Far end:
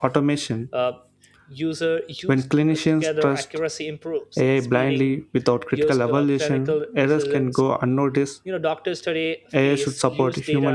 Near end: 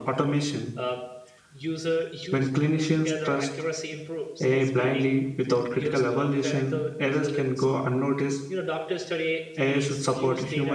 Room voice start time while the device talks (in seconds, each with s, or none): none